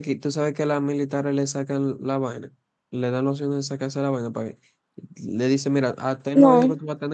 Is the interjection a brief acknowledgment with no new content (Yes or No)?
Yes